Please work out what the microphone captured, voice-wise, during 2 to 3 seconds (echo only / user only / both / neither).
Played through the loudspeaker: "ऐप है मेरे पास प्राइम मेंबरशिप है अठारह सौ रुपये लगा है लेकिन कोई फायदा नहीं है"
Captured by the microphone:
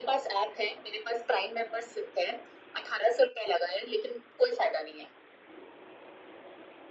echo only